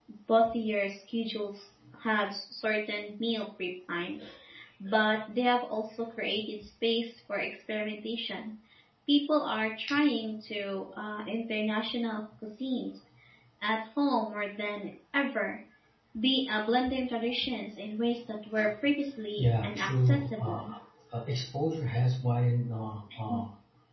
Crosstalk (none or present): present